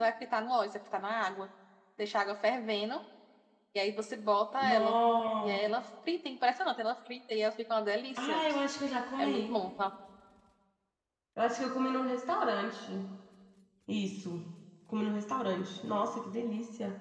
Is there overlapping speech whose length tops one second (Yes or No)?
No